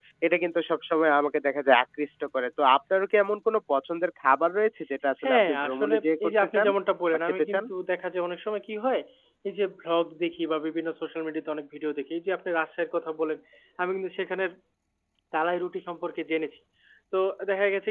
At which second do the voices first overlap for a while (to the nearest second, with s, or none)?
5 s